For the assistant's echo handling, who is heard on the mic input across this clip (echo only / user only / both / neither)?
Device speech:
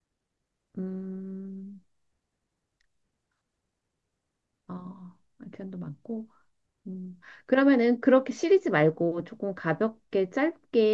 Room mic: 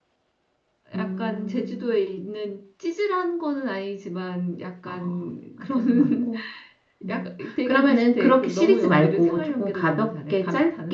both